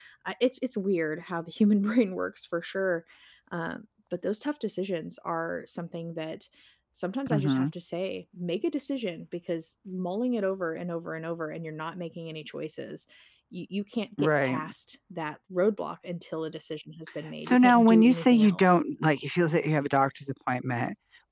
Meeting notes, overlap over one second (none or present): present